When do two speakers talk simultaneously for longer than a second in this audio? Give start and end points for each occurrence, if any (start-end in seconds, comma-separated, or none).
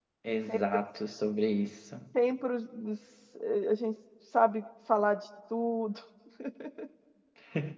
none